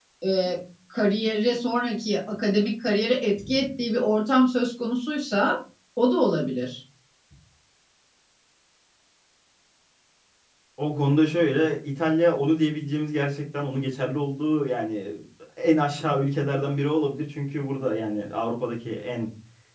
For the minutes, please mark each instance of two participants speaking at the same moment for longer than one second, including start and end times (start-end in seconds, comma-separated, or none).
none